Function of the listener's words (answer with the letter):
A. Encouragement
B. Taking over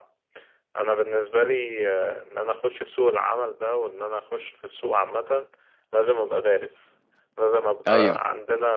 A